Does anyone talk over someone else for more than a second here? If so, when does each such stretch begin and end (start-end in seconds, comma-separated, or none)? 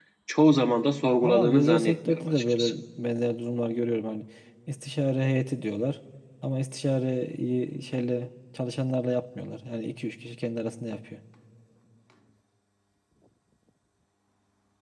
1.2-2.7